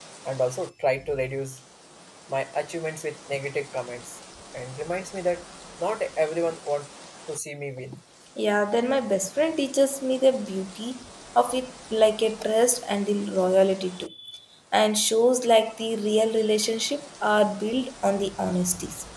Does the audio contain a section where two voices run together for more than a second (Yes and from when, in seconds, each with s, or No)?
No